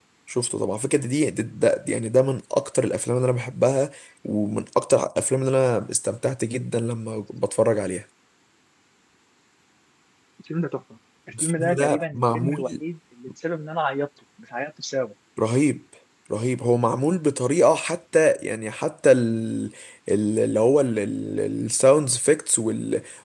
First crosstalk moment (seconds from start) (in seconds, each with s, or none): 11.3 s